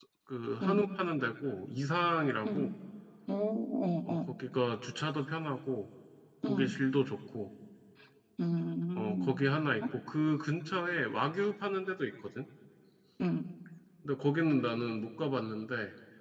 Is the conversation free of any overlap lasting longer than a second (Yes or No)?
Yes